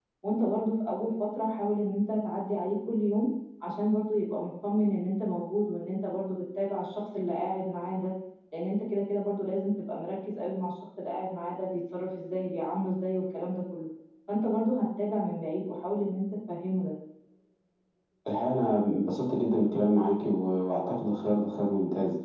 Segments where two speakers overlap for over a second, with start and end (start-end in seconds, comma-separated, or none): none